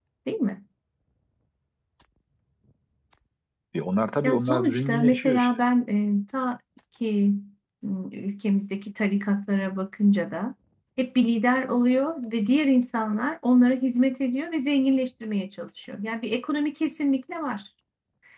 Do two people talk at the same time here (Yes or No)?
Yes